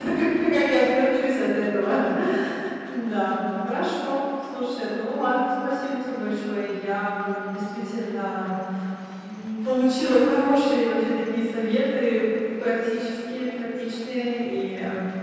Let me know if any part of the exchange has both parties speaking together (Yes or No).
No